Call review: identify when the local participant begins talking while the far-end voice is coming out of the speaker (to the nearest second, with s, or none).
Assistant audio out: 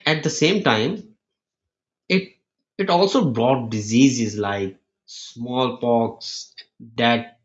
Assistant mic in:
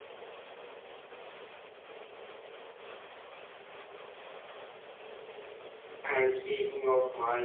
6 s